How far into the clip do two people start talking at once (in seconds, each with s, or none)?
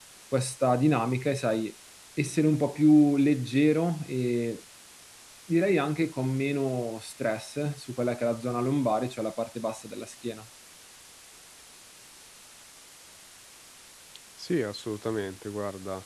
none